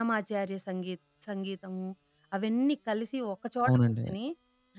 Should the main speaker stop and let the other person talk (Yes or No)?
No